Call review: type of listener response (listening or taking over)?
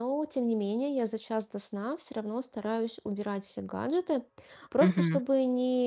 listening